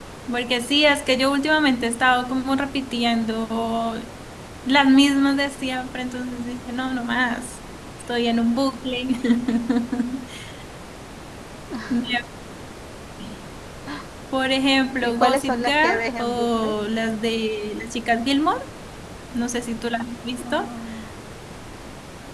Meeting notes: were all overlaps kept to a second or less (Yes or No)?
No